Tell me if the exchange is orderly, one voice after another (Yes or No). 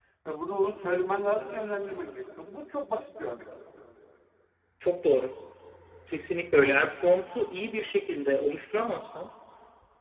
Yes